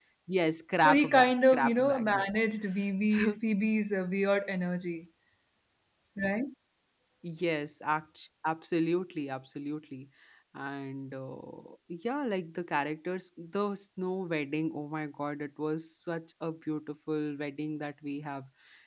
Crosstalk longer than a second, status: present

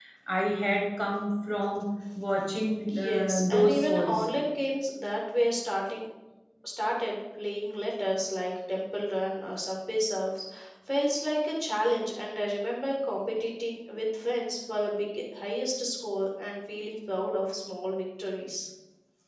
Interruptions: present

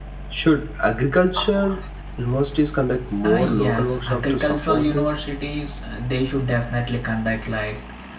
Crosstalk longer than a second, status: present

